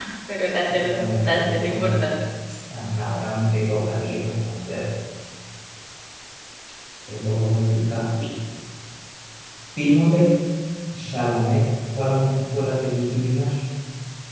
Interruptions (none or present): present